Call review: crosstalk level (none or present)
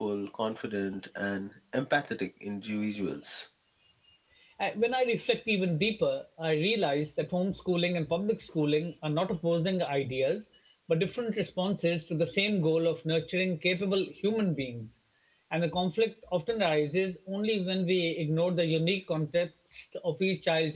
none